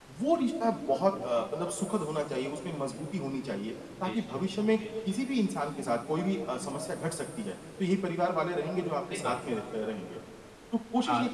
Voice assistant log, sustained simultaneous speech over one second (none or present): none